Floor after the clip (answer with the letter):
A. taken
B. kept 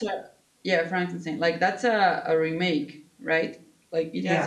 B